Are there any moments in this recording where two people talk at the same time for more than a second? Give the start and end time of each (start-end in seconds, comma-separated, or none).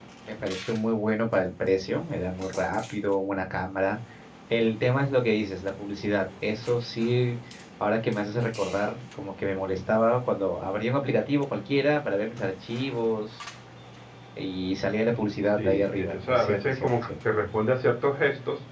15.6-17.1